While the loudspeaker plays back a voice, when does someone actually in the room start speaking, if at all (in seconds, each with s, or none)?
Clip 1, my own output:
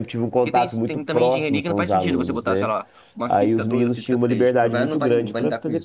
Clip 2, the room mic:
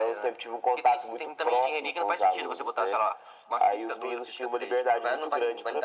none